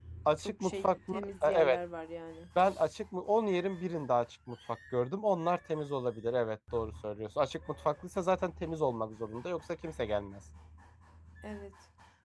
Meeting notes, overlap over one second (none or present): present